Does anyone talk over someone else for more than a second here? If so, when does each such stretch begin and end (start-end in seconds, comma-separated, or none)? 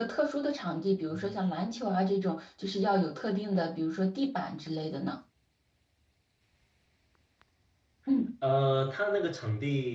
none